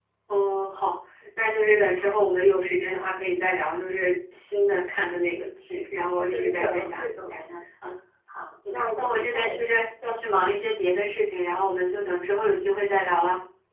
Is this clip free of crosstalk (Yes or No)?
No